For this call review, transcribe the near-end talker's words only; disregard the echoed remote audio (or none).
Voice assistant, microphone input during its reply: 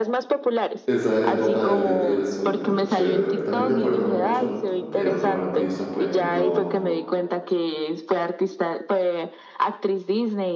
Esa época de Disney era súper chévere. También me acuerdo mucho de otros artistas, por ejemplo,